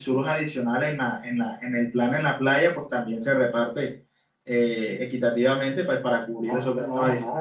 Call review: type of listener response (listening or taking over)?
taking over